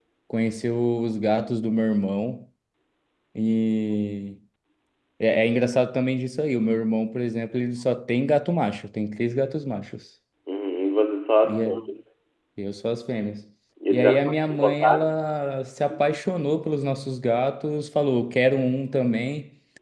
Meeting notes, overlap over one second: present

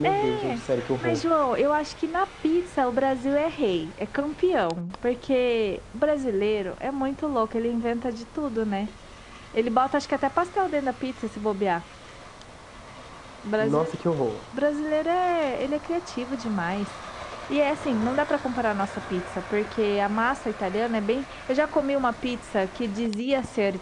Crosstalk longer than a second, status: none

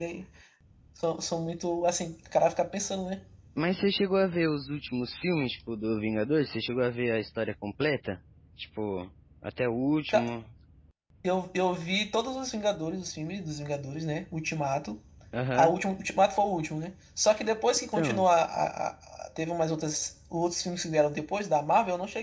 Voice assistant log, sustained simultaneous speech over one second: none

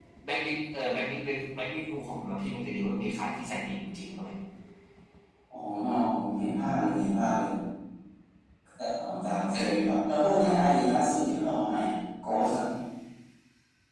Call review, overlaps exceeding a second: none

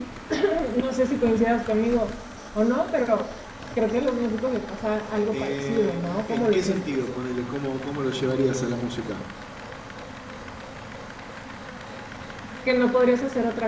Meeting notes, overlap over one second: present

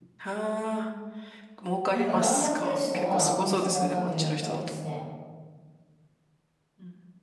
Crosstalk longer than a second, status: present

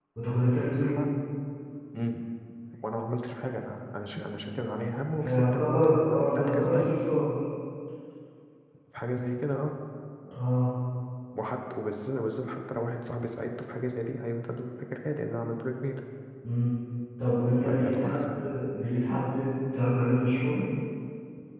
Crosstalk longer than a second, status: present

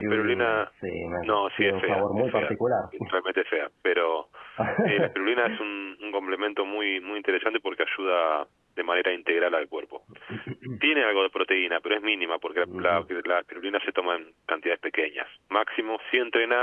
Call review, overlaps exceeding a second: present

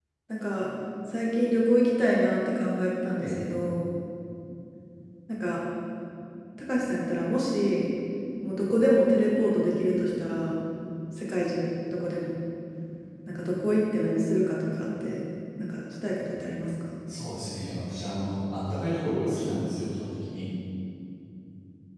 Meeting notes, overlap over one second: none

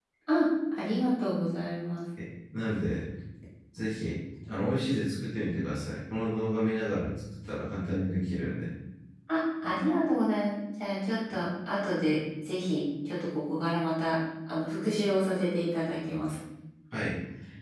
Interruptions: none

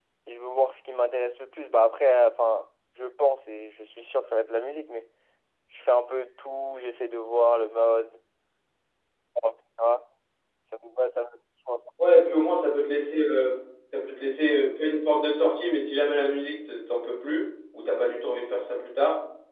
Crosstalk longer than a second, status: none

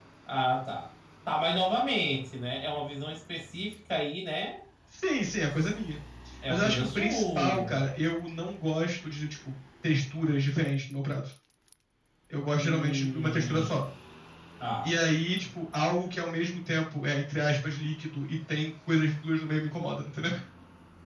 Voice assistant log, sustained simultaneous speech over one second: present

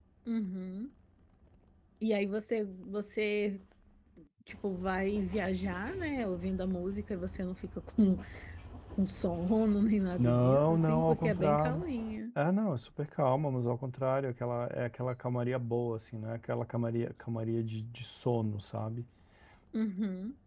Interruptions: present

